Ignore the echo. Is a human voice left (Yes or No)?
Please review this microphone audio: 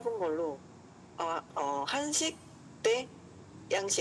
No